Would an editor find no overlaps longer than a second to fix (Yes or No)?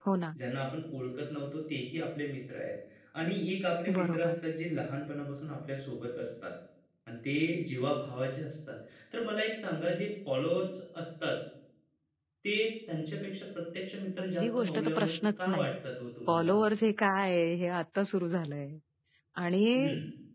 No